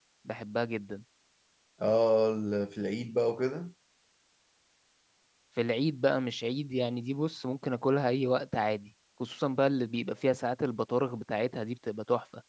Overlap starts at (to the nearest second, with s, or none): none